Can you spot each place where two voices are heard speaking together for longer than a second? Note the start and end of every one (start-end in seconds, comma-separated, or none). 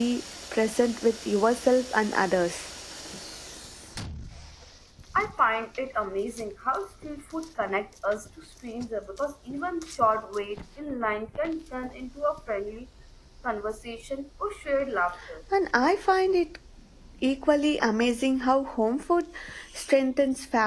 none